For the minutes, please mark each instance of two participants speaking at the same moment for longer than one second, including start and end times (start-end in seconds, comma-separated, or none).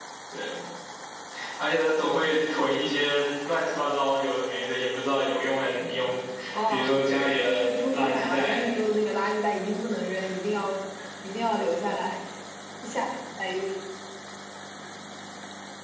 7.4-8.6